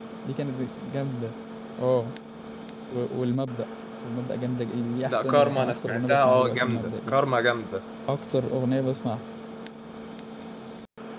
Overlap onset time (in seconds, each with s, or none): 5.0 s